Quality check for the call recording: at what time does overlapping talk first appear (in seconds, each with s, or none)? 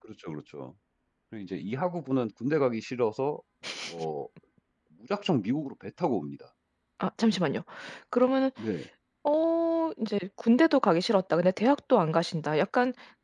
none